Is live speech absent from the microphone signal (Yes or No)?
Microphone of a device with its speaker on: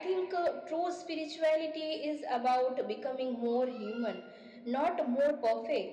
Yes